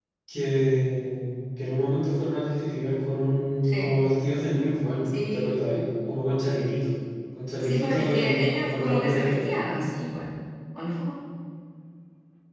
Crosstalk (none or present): present